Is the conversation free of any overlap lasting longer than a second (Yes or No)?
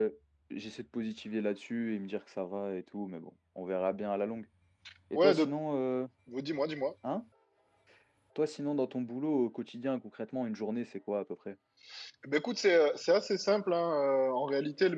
Yes